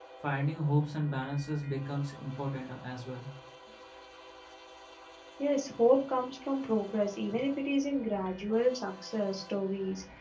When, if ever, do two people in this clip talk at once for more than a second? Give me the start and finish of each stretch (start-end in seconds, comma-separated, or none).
none